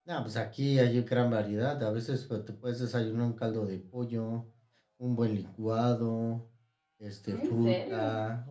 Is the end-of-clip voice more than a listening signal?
No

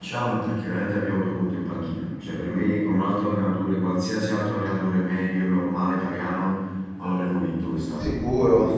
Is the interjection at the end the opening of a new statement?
Yes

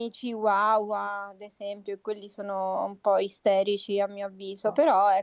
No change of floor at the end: Yes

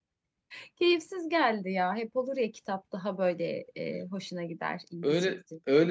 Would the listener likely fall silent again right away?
No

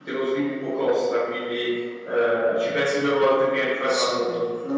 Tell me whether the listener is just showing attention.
No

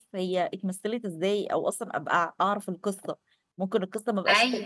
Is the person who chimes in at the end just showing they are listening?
Yes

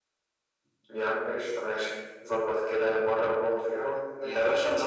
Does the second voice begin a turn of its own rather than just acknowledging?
Yes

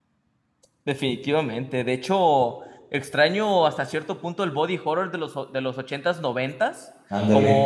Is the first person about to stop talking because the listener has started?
No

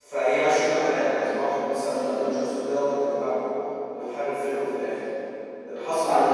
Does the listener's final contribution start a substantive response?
No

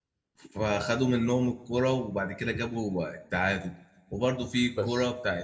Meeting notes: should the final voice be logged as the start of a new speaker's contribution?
No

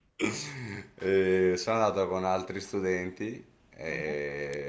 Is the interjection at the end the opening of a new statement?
No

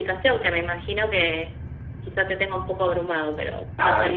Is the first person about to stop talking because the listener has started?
Yes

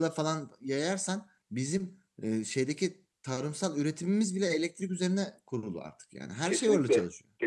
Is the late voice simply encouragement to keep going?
No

